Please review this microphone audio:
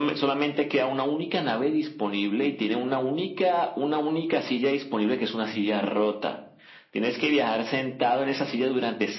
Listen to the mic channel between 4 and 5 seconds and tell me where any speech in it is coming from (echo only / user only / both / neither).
echo only